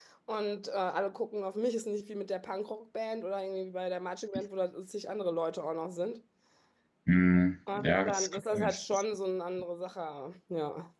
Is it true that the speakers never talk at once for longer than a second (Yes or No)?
No